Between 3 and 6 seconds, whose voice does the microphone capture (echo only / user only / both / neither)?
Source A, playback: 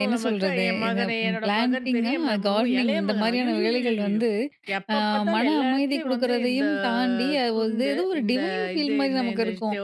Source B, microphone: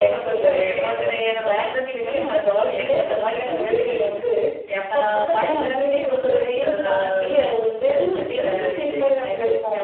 echo only